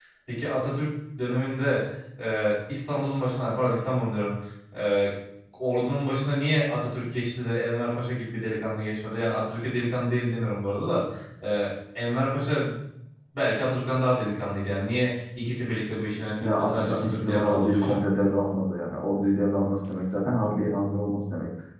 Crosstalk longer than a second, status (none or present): present